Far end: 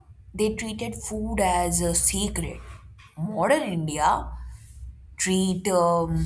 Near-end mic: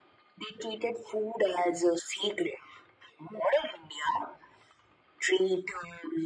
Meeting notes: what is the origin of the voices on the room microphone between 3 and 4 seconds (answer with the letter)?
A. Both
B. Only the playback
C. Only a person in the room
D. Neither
B